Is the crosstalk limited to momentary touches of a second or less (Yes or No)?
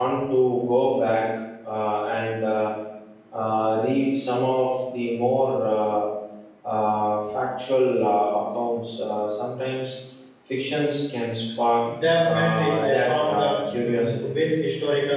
No